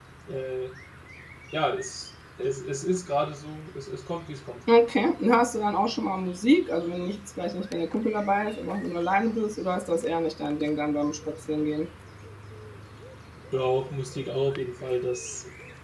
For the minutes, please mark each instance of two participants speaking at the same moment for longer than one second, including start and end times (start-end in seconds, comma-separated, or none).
none